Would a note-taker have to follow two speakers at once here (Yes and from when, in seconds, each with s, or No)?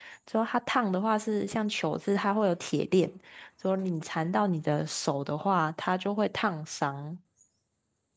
No